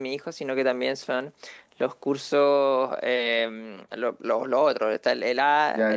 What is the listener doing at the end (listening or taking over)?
taking over